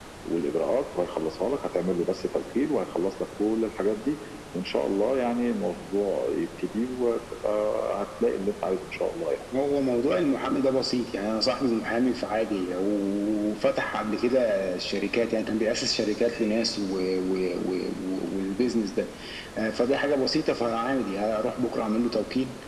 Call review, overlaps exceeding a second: none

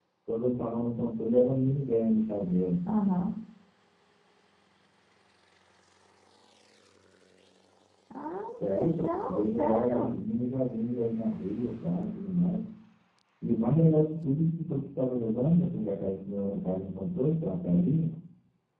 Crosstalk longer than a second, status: present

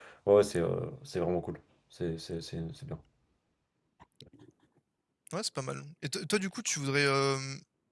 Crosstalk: none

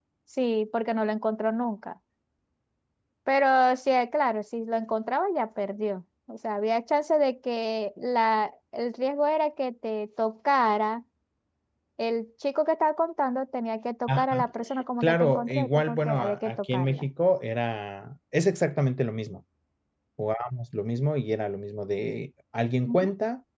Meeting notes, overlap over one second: present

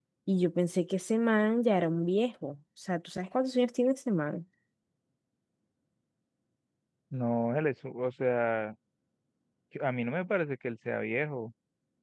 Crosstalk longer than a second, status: none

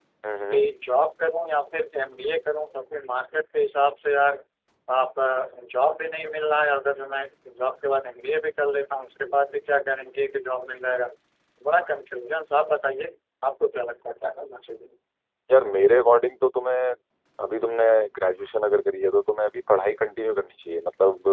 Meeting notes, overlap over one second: none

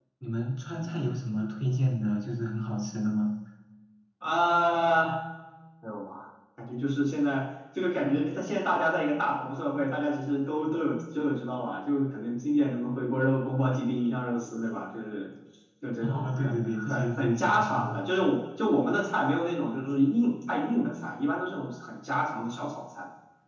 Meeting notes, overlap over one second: present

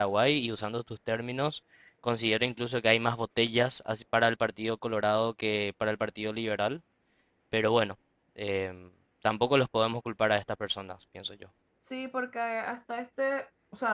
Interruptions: none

